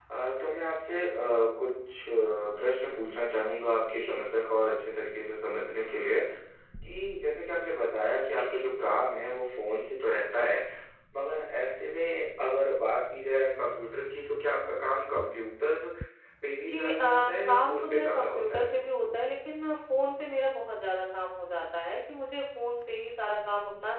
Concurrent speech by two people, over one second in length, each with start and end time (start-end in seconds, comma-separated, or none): 16.7-18.6